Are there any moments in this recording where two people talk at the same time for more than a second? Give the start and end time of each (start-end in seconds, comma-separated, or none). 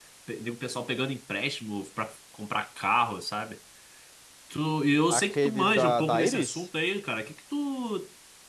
5.1-6.7